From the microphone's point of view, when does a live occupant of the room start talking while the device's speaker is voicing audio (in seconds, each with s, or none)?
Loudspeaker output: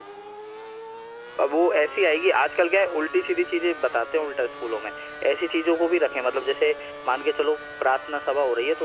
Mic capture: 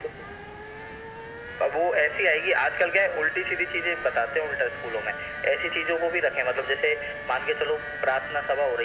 none